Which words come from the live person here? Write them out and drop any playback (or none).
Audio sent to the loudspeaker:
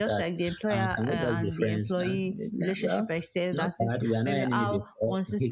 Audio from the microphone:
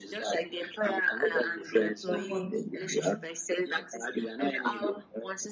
don't want to be.